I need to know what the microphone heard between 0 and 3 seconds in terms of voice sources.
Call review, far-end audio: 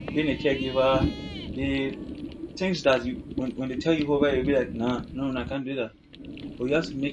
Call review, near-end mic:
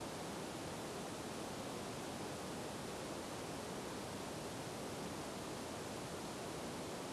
neither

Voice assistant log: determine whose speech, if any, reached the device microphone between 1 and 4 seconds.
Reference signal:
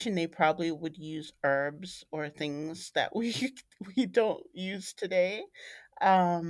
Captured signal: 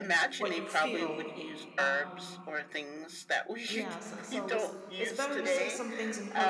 both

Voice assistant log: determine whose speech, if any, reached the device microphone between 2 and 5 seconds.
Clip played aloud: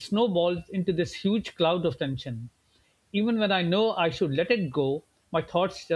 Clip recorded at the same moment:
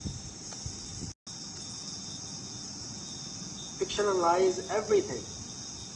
user only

